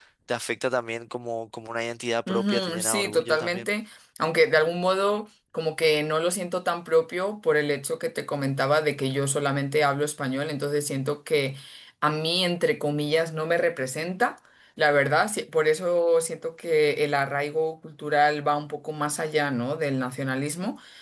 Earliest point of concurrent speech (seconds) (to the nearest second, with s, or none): 2 s